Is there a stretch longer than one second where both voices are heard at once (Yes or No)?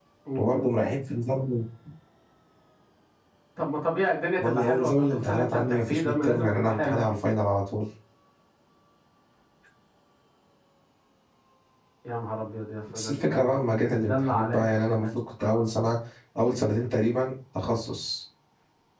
Yes